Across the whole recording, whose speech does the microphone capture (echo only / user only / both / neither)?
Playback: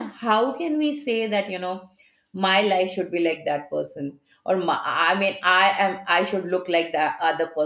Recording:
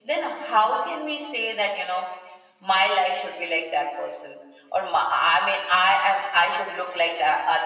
echo only